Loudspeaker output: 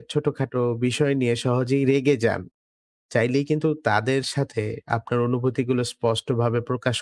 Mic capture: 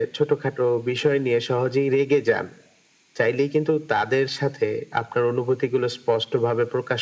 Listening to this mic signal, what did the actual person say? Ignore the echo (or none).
none